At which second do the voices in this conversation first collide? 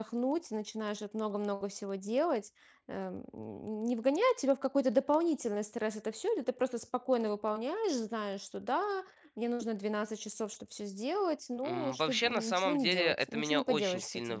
12 s

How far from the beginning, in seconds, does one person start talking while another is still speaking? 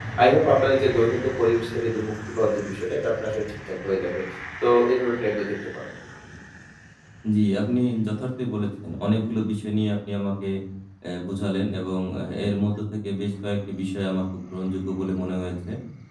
none

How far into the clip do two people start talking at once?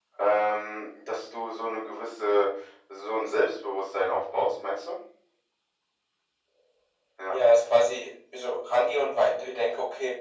none

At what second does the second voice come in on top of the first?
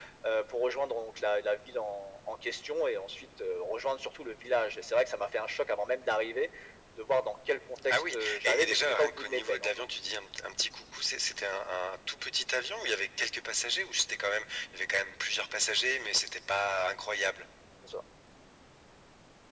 8 s

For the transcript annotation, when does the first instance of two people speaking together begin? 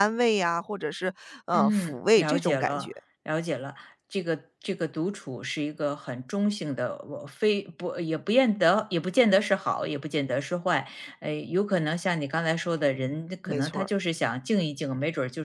2 s

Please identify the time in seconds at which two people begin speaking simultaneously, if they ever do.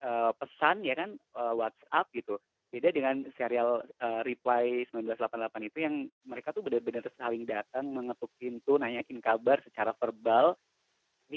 none

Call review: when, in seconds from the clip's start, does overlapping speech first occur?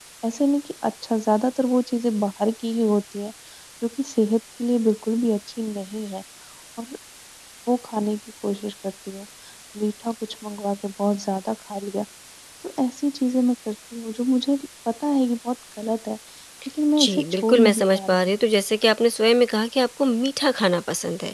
17 s

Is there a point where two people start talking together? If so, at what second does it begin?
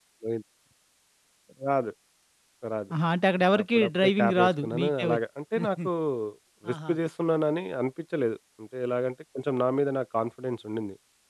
4 s

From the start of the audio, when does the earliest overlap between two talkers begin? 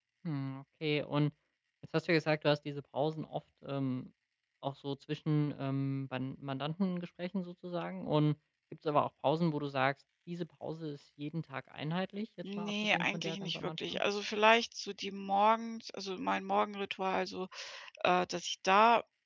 12 s

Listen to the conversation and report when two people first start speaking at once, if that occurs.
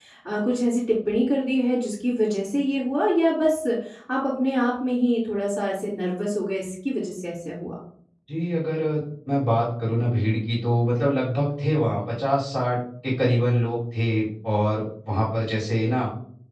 none

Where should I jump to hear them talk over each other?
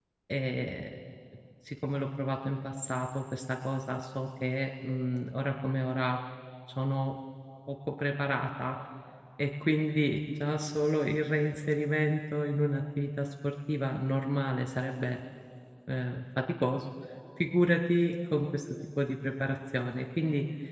none

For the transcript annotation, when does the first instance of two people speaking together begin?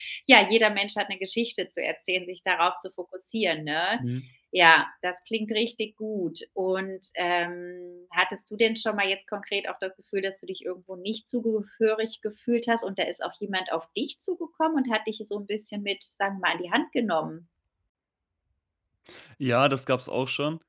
none

